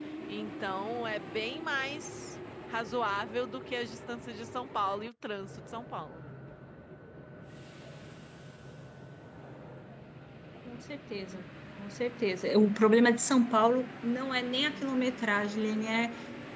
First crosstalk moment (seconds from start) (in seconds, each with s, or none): none